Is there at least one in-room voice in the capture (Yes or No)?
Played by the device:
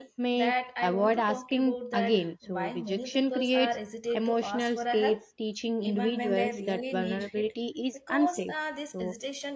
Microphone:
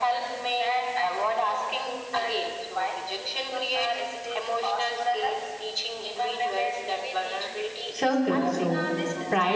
Yes